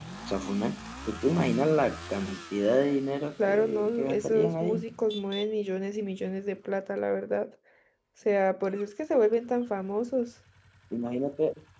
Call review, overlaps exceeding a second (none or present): present